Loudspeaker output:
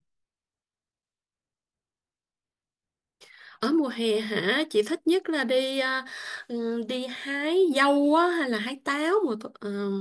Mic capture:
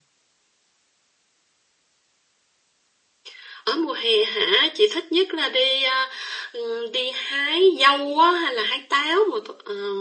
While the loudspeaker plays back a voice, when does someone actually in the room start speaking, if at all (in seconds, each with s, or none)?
none